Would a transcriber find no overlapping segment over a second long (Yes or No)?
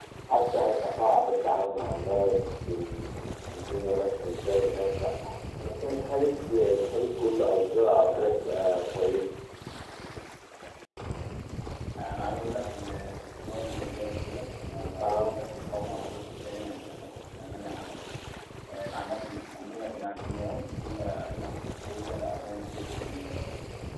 Yes